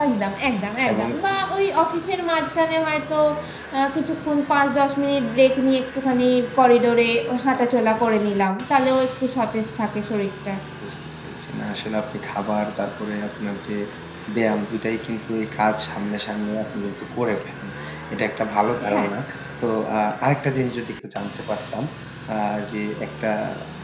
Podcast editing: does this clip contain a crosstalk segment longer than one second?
No

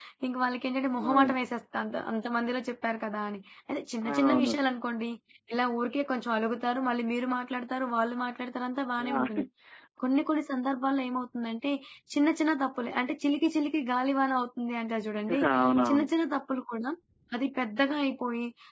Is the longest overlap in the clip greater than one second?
No

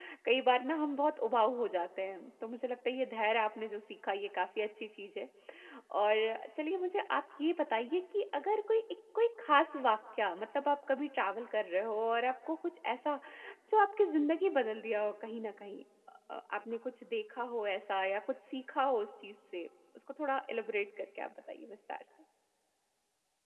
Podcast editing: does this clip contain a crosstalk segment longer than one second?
No

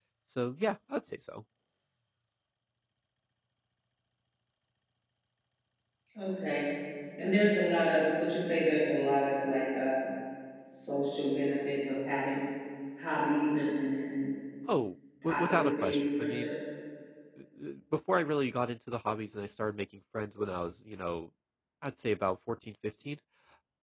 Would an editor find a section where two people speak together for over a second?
Yes, from 15.2 s

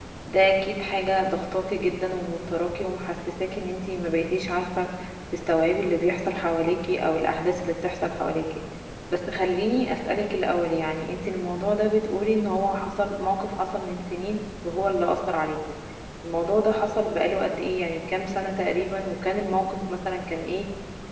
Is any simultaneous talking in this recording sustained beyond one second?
No

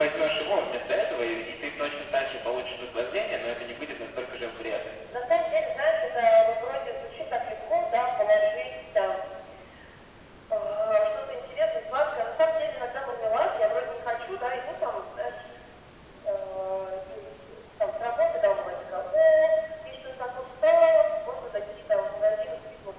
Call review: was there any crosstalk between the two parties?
No

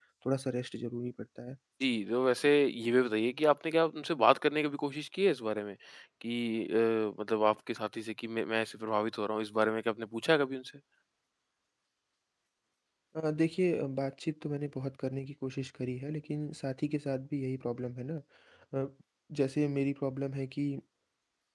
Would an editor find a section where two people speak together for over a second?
No

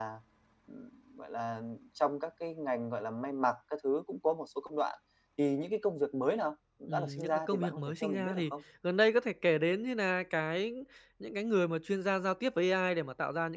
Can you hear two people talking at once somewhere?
Yes, from 6.9 s

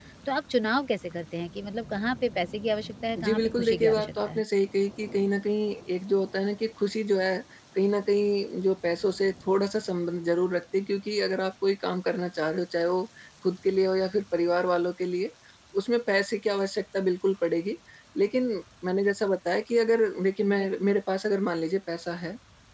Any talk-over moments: Yes, from 3.2 s

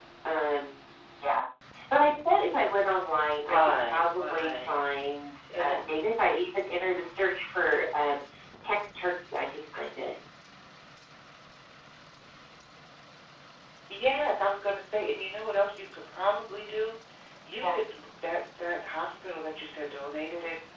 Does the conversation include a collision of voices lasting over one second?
Yes, from 3.4 s

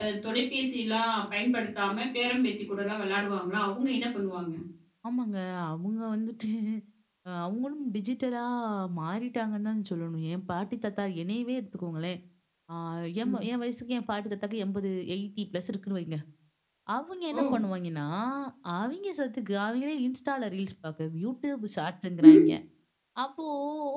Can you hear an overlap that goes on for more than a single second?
No

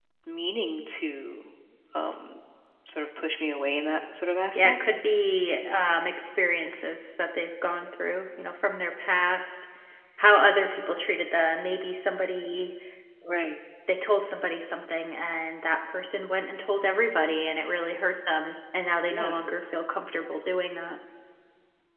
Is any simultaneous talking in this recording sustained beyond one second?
No

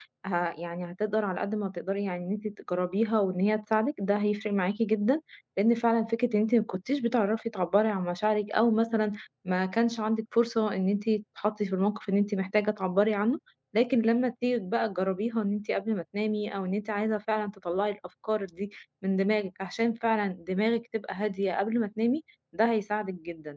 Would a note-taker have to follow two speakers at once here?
No

